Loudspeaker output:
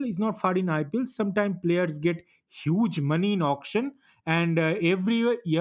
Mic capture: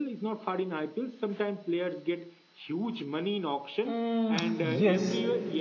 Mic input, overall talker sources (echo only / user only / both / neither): both